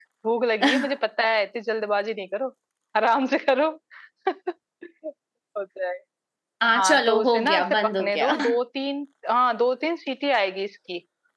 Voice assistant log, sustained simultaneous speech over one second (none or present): present